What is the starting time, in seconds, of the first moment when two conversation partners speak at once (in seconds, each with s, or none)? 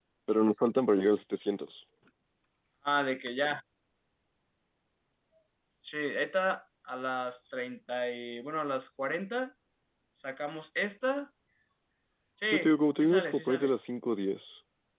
12.5 s